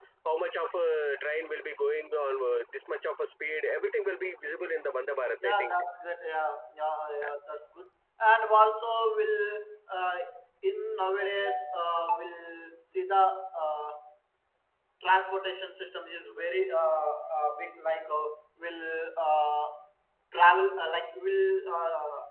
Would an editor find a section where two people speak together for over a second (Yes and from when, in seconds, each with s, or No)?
No